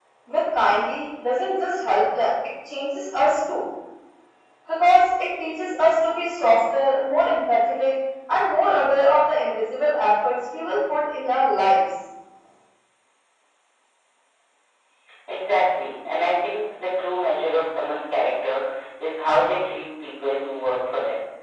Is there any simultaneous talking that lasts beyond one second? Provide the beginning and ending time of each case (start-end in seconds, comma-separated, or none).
none